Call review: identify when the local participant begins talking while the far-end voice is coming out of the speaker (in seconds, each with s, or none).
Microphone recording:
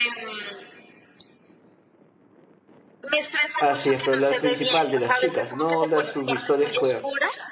3.6 s